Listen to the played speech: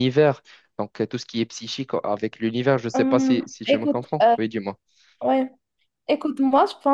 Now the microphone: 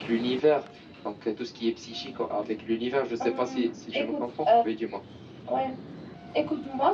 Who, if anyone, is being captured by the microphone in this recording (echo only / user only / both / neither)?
echo only